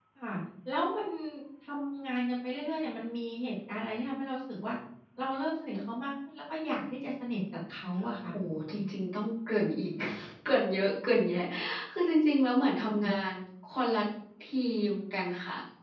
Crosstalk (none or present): none